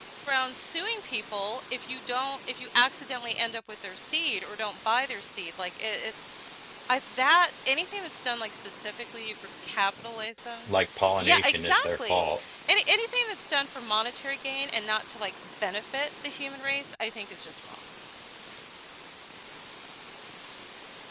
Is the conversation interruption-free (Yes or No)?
No